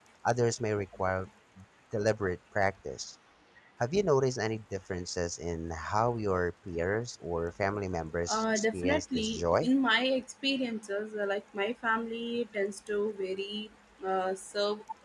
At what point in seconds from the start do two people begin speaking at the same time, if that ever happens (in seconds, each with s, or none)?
8.3 s